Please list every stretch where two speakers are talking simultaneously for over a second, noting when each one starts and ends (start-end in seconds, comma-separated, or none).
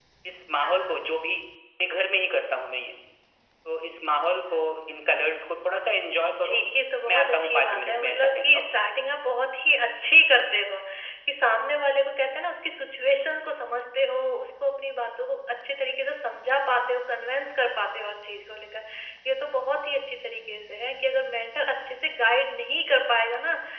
7.1-8.6